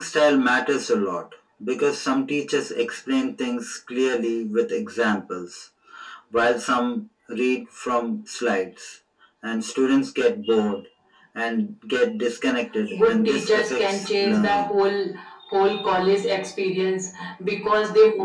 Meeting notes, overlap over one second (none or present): present